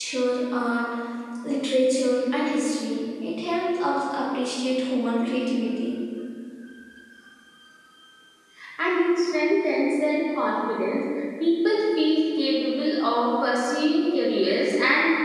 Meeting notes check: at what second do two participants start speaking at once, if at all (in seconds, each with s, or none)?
none